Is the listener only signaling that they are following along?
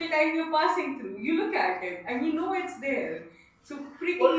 No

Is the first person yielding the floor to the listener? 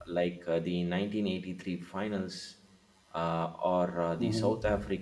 No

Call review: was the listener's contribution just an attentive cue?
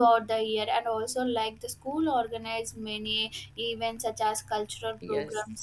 No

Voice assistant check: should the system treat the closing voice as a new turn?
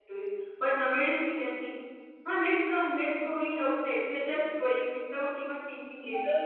Yes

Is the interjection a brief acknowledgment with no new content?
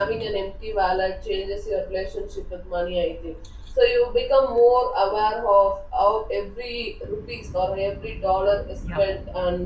Yes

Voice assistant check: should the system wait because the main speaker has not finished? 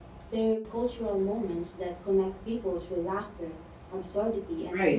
No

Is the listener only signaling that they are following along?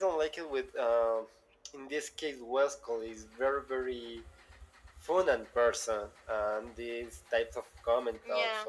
Yes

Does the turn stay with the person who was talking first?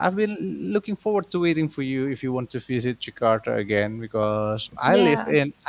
Yes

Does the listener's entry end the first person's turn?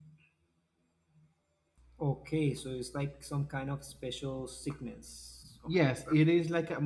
Yes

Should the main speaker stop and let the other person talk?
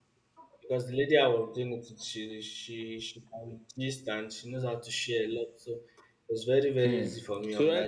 Yes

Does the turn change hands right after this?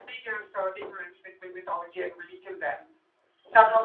No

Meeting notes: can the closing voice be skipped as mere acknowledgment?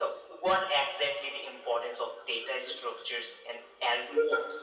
No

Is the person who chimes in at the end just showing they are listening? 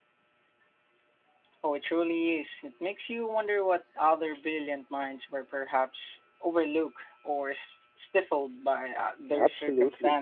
No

